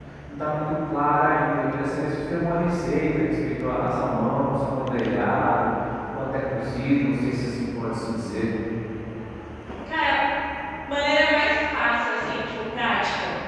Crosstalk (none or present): none